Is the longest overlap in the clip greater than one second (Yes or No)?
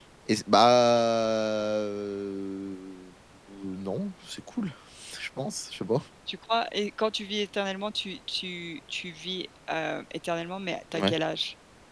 No